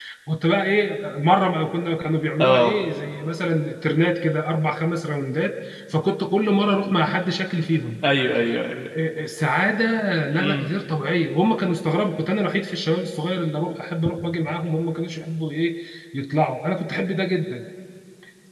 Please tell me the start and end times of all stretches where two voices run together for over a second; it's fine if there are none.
none

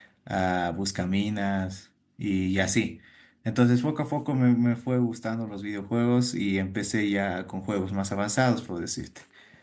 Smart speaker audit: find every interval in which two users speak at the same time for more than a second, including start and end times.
none

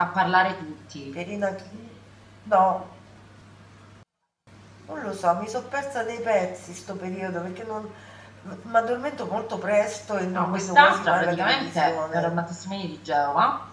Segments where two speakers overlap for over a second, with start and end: 10.3-12.3

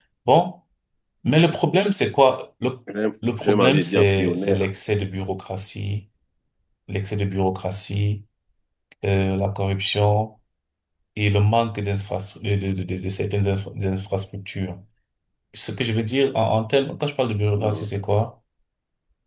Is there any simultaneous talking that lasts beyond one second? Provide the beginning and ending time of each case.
3.4-4.7

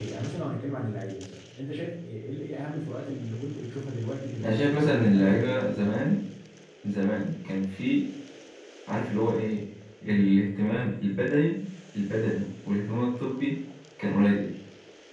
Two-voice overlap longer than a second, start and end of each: 4.4-5.6

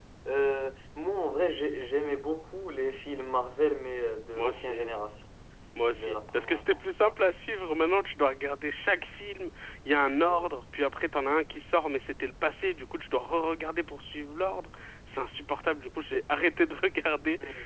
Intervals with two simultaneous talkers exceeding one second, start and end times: 5.9-7.1

